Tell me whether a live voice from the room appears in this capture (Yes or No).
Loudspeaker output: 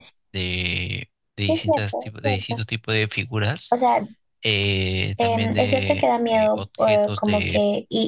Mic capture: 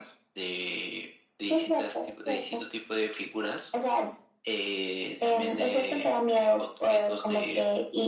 No